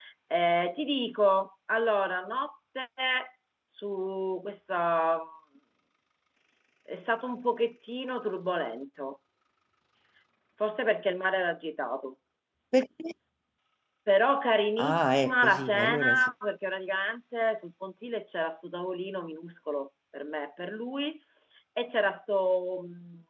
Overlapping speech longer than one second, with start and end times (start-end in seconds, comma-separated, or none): 14.8-16.3